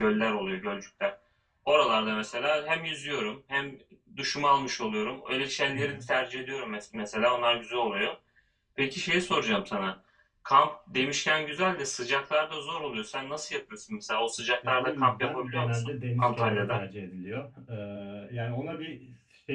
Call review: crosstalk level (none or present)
present